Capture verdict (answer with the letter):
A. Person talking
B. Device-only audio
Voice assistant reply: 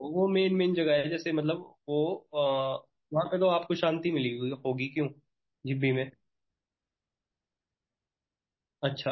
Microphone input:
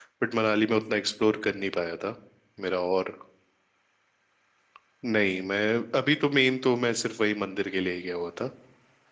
A